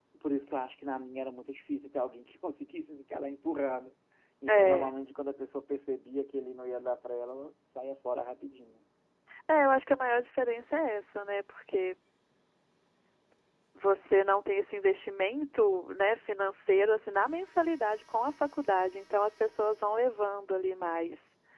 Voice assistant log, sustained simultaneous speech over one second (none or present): none